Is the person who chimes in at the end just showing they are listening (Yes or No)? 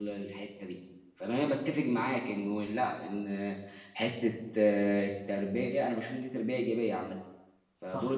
Yes